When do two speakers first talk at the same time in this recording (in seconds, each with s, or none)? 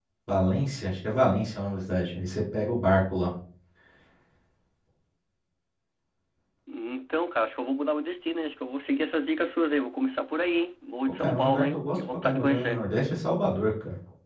11.2 s